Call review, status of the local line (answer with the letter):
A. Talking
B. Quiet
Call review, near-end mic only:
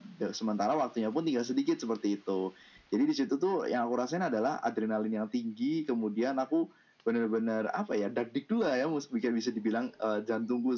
B